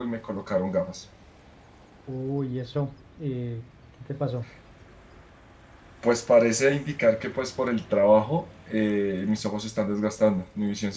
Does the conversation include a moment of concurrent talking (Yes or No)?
No